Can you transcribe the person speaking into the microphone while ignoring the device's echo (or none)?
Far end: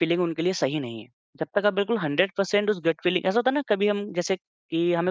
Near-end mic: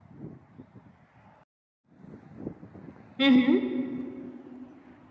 हुँ, हुँ।